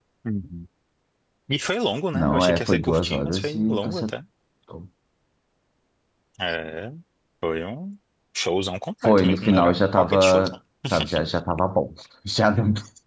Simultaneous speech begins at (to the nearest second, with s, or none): 2 s